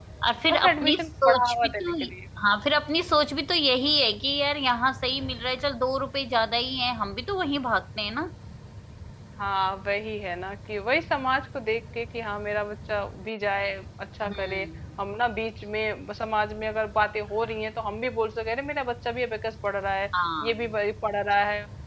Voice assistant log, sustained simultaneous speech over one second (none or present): present